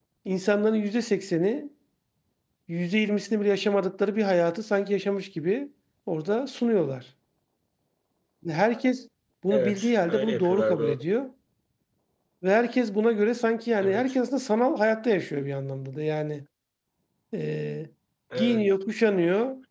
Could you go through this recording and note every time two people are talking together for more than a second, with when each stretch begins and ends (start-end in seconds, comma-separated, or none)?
9.5-10.9